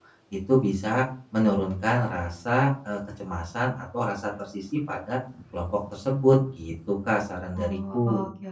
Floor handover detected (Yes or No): Yes